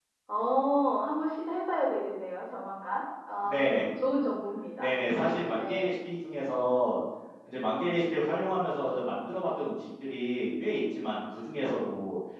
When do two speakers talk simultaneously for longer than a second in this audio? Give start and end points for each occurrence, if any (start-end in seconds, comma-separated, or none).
none